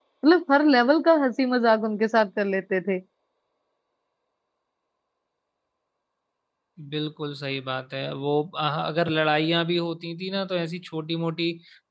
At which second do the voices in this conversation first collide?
none

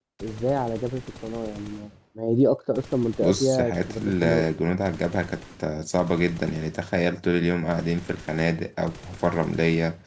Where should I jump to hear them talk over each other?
3 s

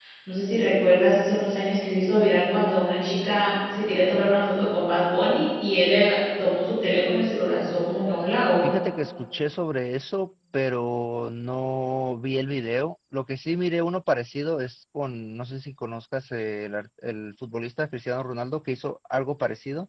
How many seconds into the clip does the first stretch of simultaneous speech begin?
none

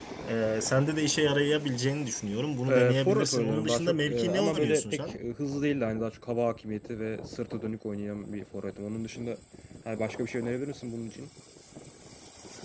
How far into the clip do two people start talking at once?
3 s

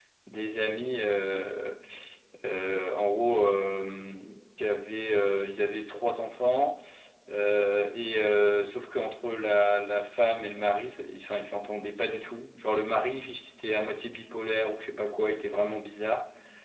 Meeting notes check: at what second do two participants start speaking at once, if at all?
none

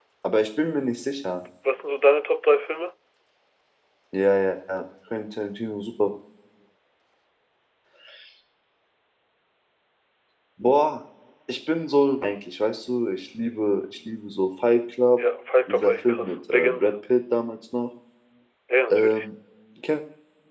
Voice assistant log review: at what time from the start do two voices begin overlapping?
16 s

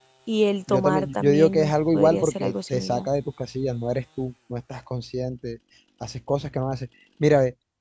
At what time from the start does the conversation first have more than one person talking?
1 s

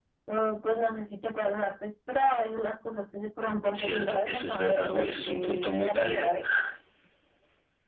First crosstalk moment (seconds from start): 4 s

